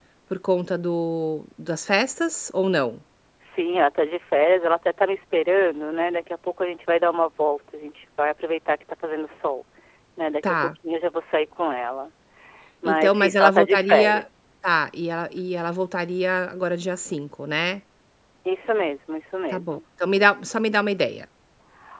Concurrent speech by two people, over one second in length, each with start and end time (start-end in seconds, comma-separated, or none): 12.8-14.2